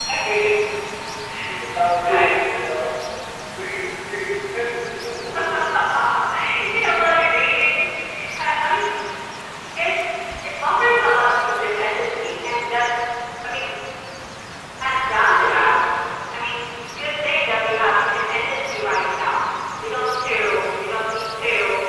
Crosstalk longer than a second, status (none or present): none